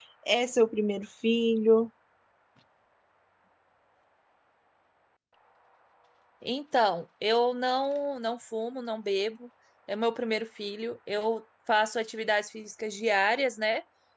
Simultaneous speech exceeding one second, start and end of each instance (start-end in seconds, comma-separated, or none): none